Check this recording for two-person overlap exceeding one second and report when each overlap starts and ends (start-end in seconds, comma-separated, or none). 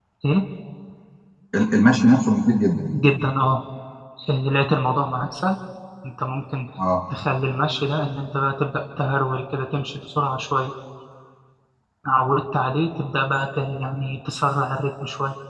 none